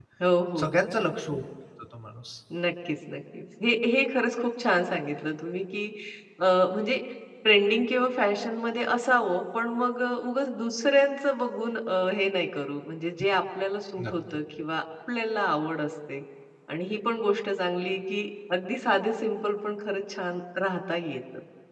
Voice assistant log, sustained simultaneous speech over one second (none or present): none